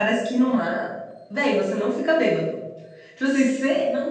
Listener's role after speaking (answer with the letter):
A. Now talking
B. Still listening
B